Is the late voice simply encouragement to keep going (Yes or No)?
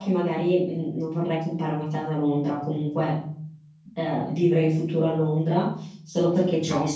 Yes